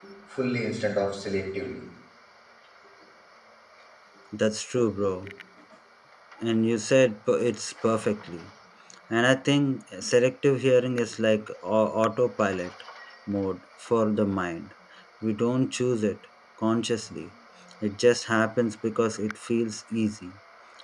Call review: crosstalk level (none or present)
none